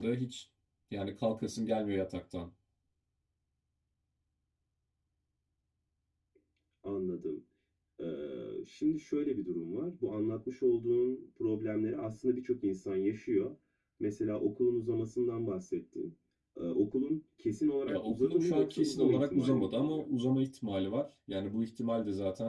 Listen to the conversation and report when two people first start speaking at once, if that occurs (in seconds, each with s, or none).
17.9 s